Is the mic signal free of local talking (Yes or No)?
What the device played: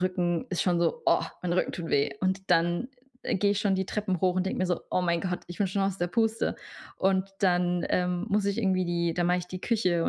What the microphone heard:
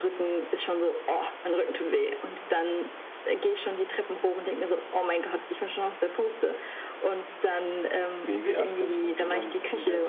No